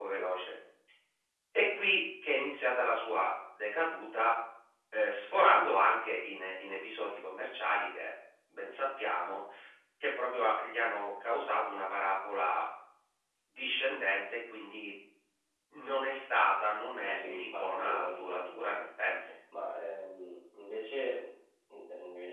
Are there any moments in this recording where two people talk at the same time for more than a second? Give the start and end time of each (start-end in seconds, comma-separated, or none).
16.9-18.2